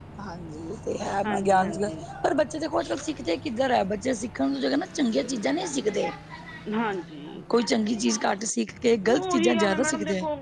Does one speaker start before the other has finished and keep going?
Yes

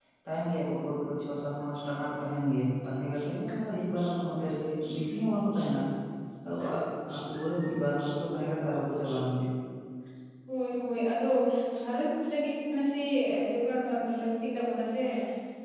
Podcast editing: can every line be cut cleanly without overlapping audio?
Yes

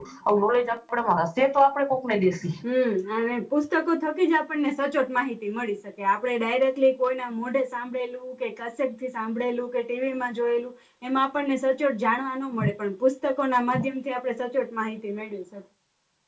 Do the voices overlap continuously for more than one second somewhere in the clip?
No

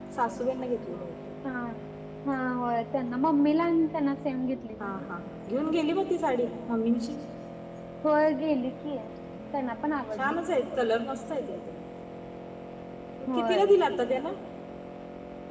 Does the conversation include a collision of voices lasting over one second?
No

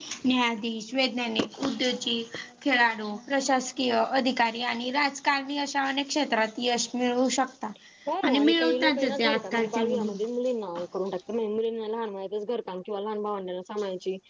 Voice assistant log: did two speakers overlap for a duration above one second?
Yes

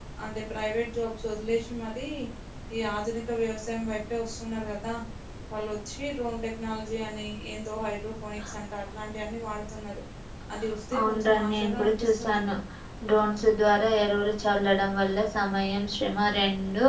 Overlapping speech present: Yes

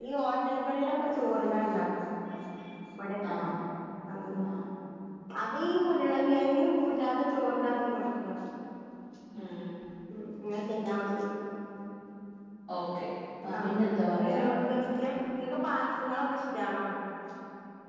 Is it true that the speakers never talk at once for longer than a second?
Yes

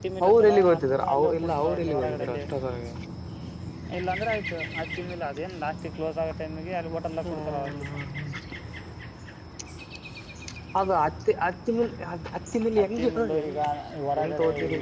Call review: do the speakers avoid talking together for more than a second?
No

